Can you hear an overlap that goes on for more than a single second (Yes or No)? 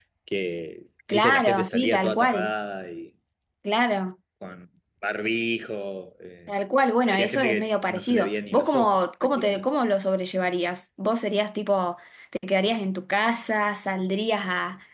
Yes